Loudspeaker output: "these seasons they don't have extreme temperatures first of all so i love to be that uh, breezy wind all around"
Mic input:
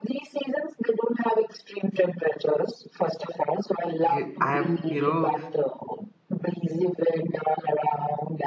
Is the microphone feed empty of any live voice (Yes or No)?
No